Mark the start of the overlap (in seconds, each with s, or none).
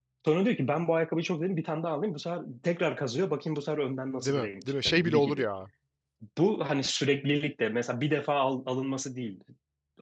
4.2 s